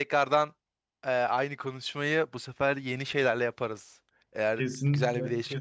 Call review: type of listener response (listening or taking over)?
taking over